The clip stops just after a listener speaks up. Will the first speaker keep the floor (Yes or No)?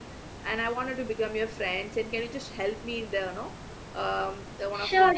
No